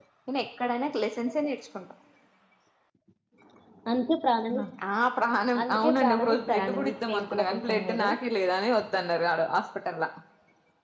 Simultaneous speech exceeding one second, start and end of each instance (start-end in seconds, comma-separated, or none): 5.6-8.1